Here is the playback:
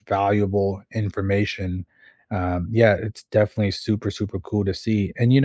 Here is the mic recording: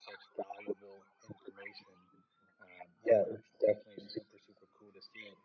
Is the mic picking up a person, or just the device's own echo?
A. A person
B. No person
B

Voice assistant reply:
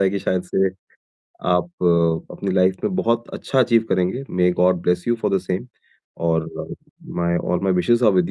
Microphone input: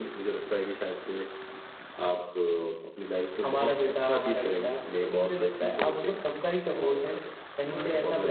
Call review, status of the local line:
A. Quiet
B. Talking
B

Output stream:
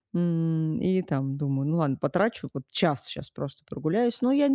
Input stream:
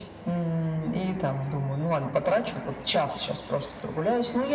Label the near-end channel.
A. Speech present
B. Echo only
B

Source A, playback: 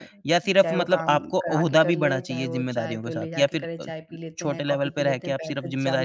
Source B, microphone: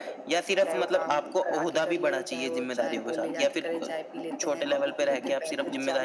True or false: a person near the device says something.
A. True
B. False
B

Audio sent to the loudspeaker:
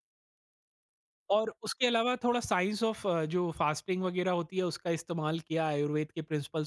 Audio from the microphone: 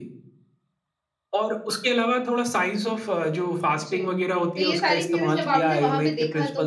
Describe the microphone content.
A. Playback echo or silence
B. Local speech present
B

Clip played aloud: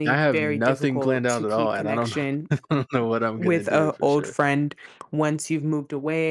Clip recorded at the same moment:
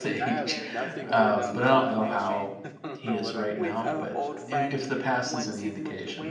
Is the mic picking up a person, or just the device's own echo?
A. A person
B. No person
A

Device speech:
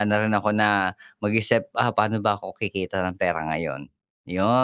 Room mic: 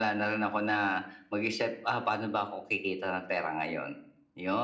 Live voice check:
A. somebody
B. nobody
B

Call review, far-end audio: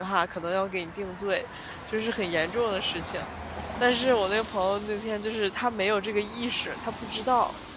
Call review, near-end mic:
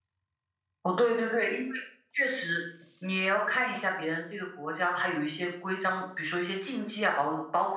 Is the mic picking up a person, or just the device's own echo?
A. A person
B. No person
A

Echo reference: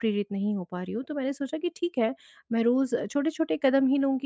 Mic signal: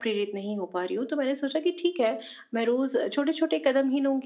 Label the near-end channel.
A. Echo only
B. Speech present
A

